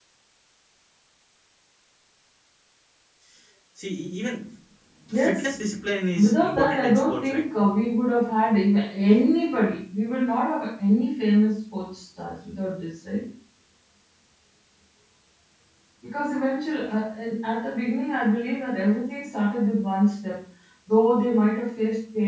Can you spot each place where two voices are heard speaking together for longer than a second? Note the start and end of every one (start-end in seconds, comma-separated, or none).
6.1-7.4